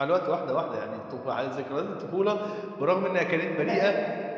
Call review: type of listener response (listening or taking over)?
listening